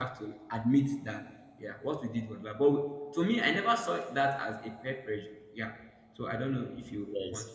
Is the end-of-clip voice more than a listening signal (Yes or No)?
Yes